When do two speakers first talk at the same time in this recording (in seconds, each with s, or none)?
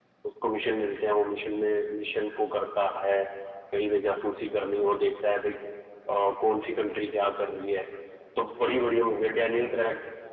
none